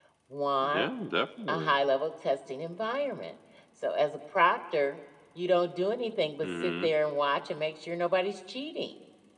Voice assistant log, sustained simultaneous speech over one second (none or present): none